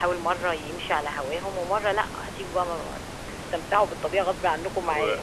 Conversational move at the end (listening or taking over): taking over